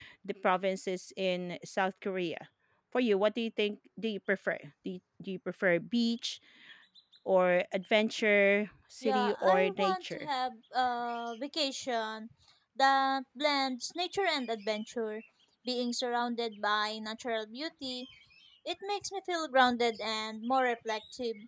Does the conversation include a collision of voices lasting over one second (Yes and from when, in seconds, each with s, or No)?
Yes, from 9.0 s